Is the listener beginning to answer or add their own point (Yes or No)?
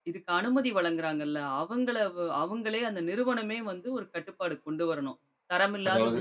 No